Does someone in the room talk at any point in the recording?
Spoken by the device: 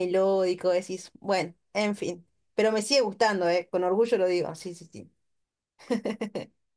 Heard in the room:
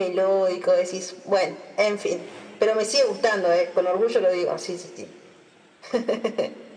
No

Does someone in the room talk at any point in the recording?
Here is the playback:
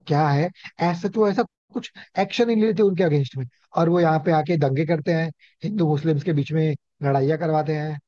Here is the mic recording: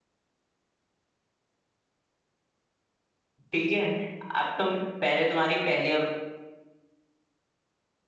Yes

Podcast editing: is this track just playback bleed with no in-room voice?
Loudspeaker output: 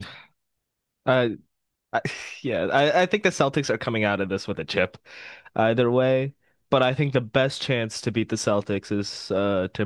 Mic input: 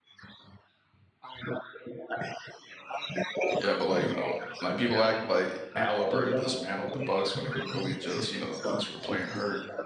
No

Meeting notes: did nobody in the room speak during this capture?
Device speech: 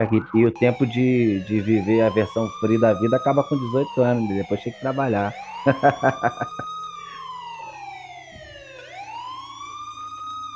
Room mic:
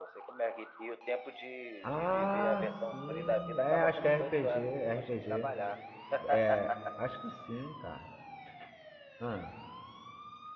No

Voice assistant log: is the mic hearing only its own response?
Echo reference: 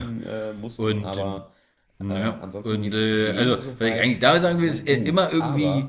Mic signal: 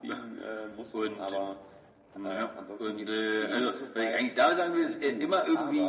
Yes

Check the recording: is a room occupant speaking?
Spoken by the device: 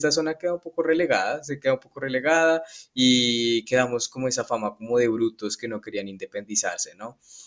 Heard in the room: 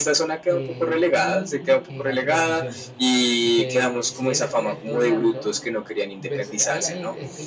Yes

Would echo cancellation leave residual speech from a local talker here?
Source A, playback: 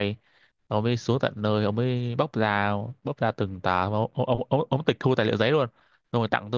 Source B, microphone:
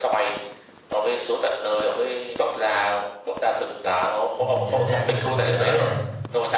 Yes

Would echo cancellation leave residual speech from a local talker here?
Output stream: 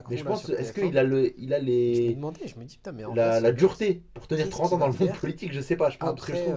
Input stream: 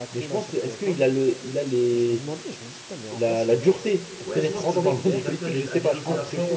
Yes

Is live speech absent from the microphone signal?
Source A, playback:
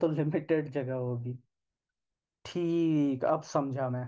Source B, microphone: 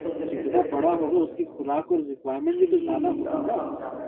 No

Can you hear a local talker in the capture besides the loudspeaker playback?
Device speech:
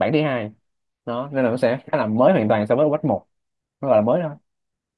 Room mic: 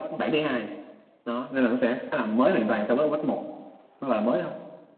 No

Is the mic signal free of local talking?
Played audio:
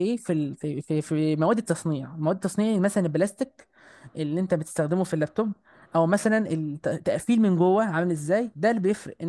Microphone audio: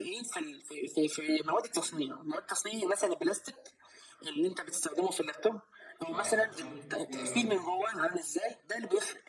No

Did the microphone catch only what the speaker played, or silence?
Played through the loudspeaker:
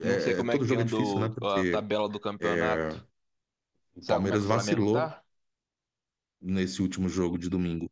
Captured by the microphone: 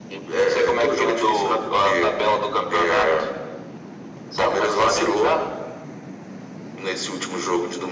Yes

